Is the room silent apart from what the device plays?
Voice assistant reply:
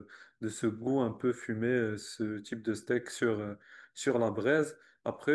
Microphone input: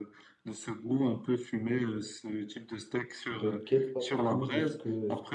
No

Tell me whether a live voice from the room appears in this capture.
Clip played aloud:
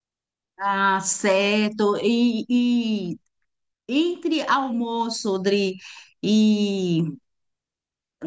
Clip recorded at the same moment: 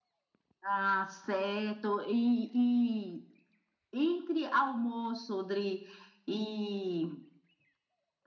No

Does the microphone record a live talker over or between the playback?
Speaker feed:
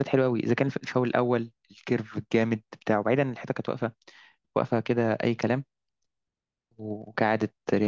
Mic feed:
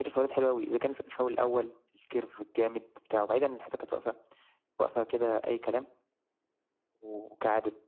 No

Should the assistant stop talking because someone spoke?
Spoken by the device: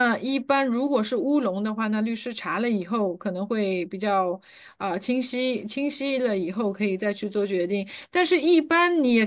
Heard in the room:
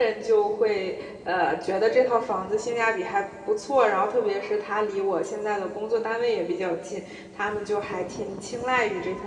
Yes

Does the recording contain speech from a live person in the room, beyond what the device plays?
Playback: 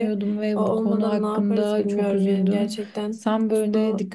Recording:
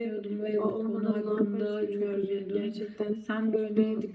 No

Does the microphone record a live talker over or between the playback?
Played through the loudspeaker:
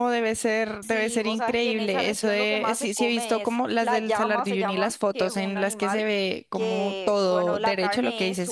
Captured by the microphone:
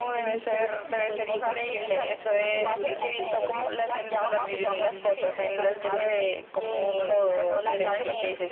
Yes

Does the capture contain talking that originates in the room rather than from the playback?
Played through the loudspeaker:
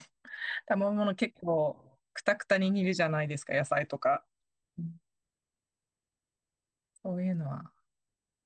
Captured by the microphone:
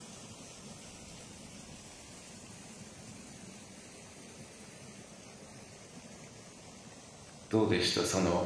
Yes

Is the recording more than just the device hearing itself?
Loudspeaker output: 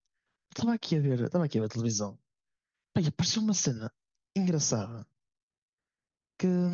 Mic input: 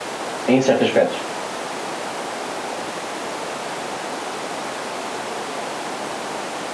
Yes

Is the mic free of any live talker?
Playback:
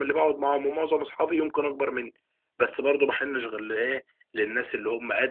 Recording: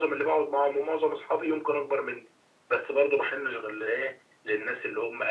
Yes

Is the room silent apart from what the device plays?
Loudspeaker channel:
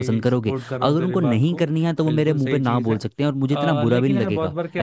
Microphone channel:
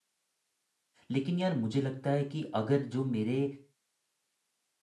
No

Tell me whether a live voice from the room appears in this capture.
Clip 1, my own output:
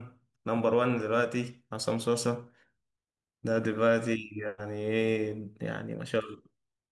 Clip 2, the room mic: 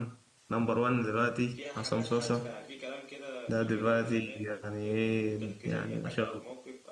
Yes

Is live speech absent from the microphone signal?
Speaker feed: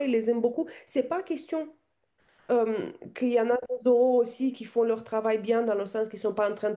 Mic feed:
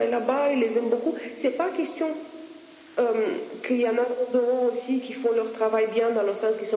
Yes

